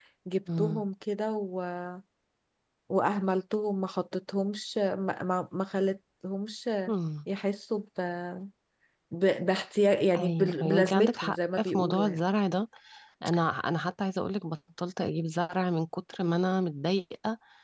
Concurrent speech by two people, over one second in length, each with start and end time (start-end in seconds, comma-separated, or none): 10.2-12.2